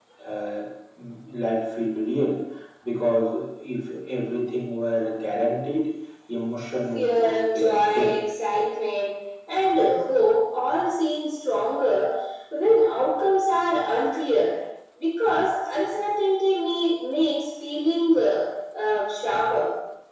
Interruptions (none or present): present